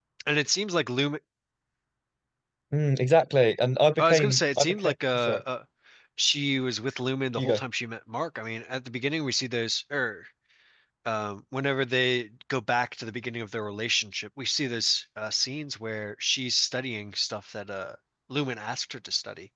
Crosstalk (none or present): present